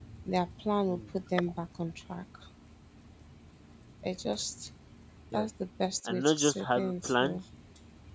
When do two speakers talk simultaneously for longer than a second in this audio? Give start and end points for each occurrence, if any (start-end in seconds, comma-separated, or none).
6.0-7.4